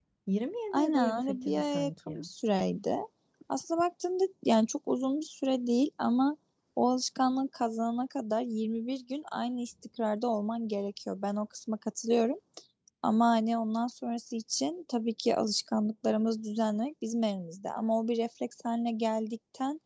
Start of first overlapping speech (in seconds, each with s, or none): 0.7 s